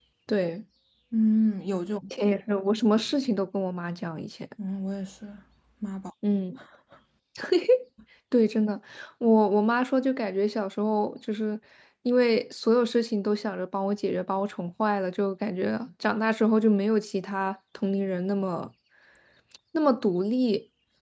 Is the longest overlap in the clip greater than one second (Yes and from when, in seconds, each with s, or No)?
No